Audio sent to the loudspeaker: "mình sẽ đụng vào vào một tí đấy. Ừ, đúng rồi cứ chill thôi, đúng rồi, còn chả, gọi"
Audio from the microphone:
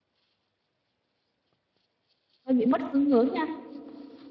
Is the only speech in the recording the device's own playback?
No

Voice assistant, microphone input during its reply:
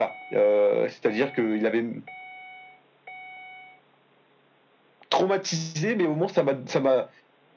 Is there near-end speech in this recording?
No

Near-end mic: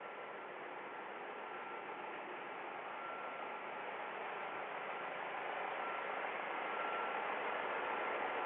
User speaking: No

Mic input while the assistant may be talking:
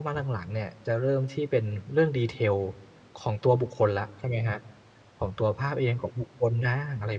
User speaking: Yes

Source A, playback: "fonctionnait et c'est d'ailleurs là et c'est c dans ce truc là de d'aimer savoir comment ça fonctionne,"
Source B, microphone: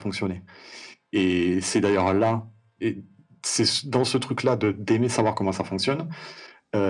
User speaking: No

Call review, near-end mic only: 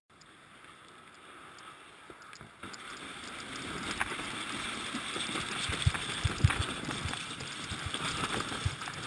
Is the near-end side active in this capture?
No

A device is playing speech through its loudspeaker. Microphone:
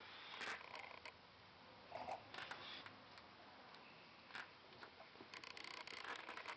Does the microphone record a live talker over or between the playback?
No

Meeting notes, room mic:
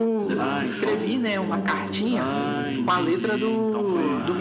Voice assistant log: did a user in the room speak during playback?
Yes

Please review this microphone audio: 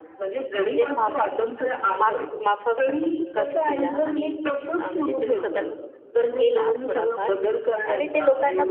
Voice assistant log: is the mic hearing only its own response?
No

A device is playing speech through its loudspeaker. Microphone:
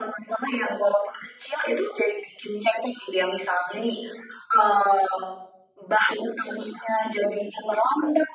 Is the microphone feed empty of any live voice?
Yes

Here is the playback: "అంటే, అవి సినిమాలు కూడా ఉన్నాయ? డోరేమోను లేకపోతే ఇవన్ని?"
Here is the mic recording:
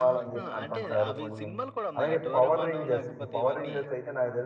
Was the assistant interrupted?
Yes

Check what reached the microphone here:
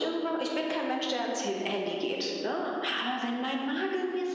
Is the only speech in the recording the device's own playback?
Yes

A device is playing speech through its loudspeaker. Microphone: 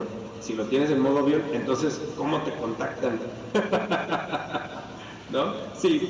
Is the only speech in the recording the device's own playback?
Yes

